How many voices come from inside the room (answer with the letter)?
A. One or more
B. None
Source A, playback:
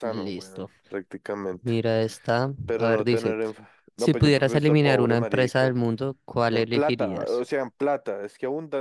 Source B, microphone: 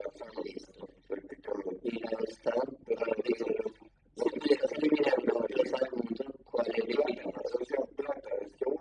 B